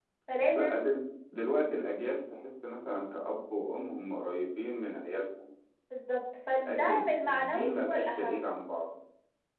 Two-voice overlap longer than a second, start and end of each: 6.5-8.4

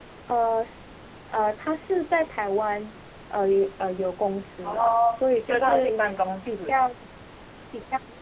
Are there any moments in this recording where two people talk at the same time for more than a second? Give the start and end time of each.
4.6-5.9

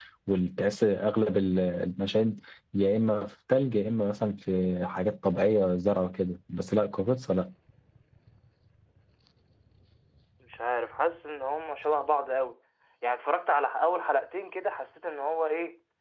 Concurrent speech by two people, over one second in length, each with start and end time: none

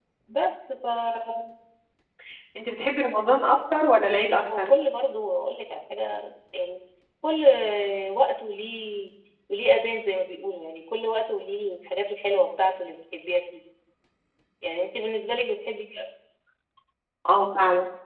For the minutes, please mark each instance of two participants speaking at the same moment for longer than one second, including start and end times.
none

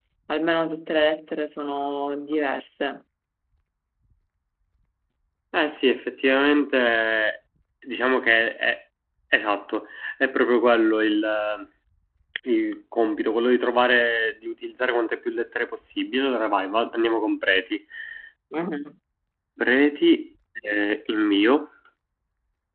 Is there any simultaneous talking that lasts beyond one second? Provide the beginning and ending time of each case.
none

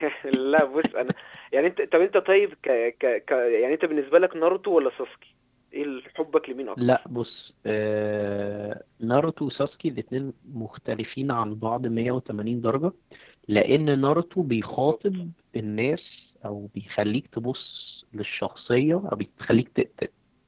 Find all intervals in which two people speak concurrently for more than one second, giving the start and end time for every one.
none

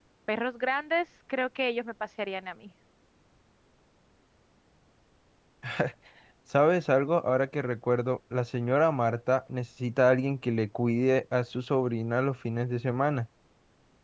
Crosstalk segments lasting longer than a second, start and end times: none

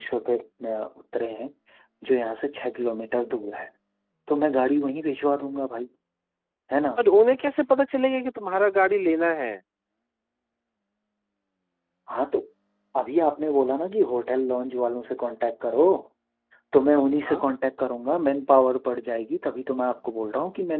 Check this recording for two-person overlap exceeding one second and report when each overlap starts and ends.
none

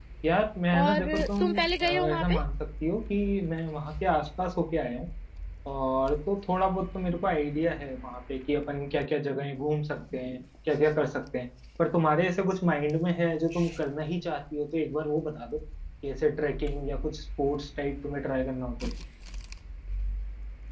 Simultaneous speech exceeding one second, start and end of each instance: 0.8-2.4

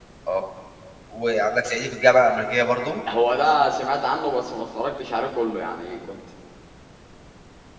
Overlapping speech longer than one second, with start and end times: none

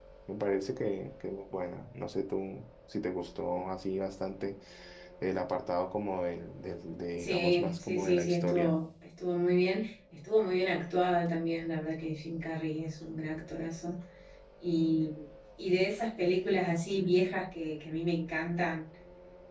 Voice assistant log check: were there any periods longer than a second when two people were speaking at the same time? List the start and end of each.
7.2-8.7

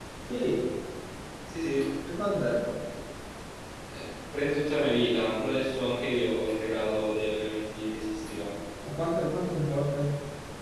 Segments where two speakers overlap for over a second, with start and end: none

